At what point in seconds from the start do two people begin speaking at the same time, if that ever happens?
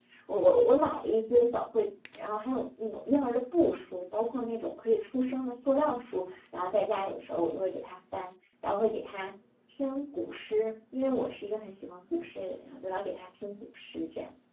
none

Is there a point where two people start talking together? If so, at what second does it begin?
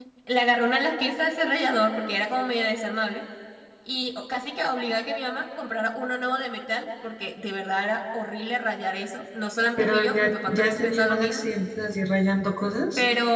9.8 s

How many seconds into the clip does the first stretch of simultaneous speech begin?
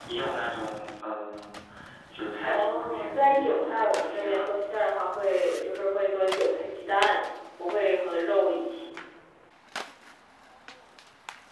2.4 s

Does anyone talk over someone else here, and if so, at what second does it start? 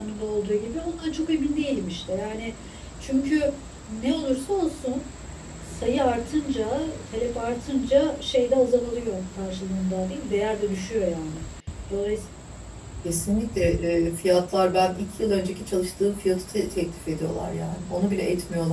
none

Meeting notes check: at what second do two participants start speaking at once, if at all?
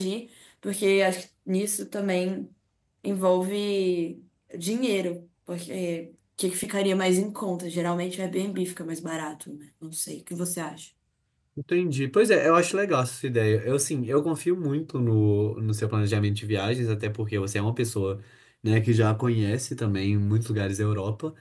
none

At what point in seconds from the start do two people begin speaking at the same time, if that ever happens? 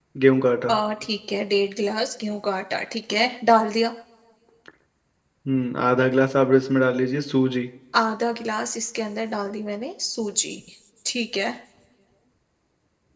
none

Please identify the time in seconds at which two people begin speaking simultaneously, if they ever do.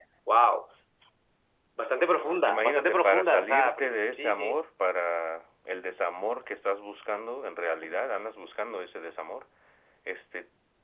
2.5 s

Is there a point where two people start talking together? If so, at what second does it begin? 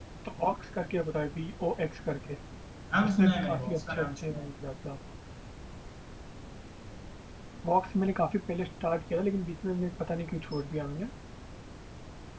3.0 s

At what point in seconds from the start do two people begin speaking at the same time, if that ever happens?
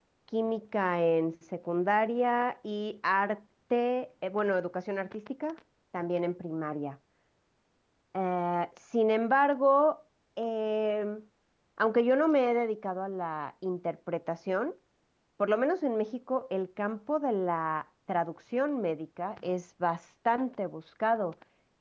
none

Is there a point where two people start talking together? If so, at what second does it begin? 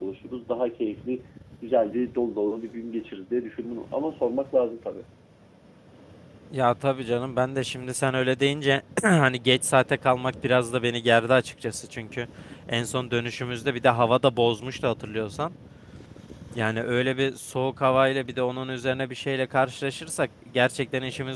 none

